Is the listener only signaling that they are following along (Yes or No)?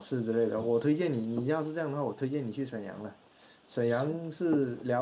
Yes